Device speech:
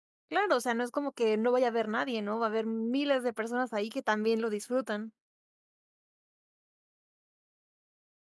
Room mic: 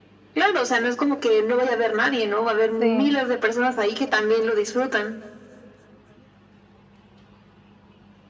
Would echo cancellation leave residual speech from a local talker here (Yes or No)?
Yes